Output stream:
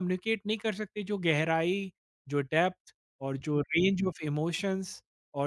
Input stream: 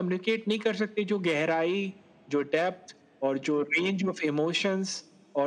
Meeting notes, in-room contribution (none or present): none